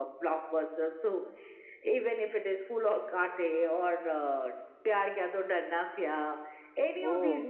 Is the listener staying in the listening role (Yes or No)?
Yes